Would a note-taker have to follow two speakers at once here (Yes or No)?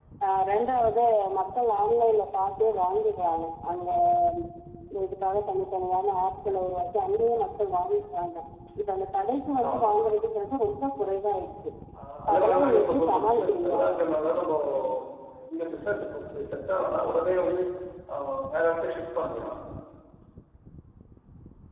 Yes